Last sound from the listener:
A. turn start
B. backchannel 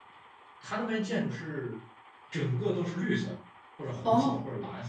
A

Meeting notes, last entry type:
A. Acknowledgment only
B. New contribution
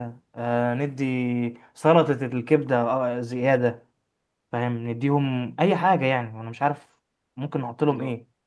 B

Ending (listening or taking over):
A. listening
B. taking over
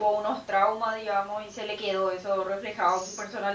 A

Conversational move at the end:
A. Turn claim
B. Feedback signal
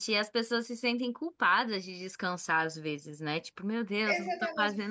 A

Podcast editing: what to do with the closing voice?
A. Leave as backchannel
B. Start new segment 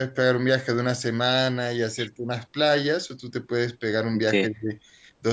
A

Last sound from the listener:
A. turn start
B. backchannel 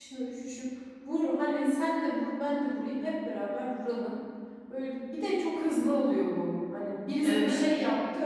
B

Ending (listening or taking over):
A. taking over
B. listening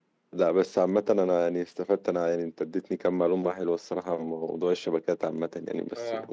B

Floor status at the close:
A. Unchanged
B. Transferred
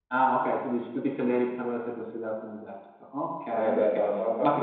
B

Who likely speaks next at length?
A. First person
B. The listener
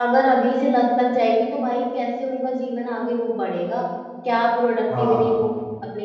A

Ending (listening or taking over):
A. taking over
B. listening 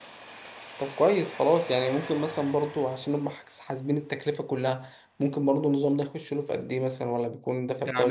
A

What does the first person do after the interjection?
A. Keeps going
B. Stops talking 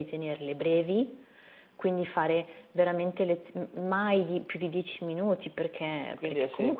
B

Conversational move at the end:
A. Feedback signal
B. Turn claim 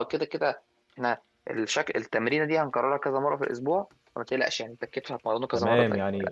B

